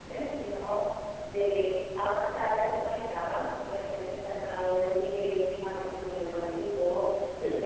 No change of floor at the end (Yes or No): Yes